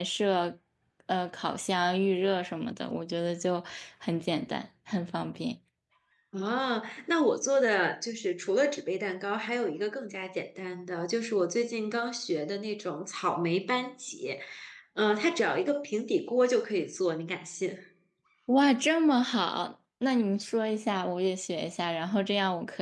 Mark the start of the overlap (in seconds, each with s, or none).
none